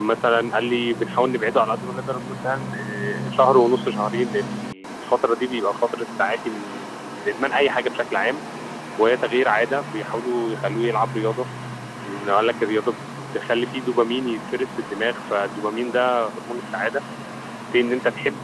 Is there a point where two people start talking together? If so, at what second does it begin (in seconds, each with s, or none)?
none